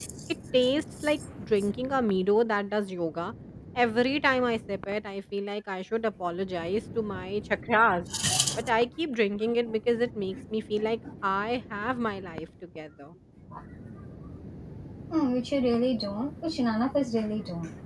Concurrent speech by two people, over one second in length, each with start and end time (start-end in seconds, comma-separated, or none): none